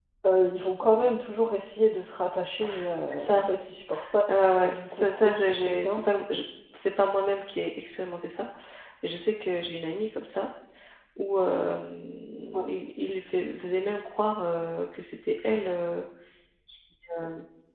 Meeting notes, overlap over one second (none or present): present